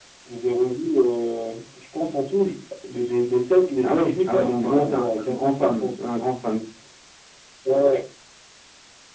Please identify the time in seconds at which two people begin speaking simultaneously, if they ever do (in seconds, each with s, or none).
3.8 s